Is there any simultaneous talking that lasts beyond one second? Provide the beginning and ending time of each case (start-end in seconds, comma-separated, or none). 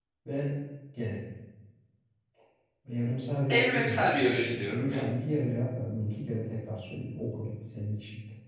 3.5-5.0